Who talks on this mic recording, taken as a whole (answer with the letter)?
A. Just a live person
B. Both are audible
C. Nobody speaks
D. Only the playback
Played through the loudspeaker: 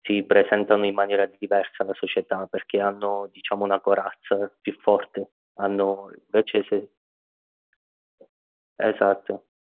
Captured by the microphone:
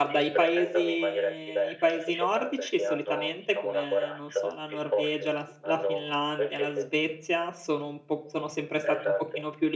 B